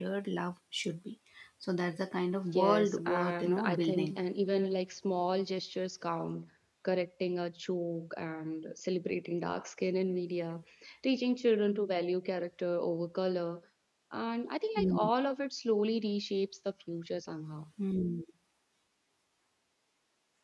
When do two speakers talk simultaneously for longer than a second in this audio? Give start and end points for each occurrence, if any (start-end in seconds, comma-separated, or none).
2.5-4.2